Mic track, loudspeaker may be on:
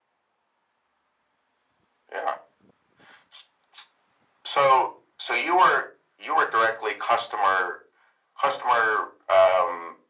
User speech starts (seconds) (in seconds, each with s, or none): none